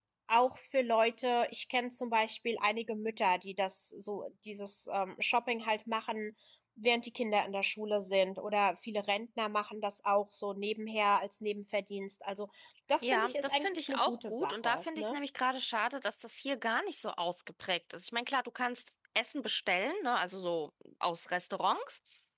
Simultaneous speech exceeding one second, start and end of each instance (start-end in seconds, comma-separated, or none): 13.0-15.2